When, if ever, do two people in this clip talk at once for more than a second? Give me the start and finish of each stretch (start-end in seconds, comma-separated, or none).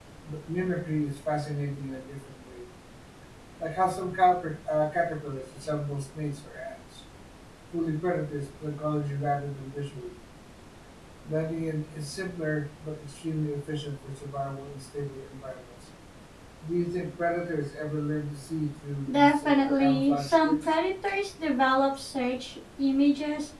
19.1-20.7